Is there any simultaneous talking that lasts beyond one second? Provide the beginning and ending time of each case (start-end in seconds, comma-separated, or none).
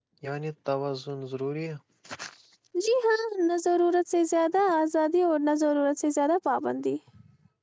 none